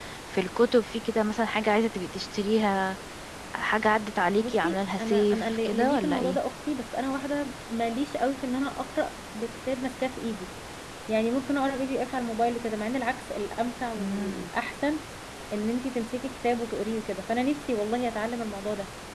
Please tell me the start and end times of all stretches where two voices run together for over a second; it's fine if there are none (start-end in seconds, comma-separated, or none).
4.4-6.4